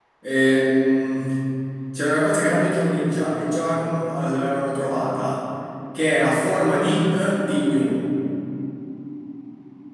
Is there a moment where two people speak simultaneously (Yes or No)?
No